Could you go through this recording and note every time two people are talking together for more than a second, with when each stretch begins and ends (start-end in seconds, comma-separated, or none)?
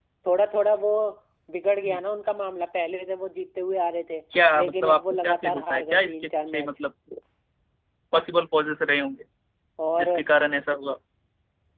4.6-6.7